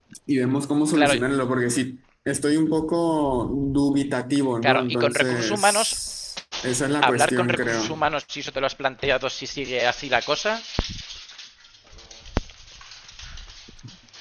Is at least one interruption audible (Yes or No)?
Yes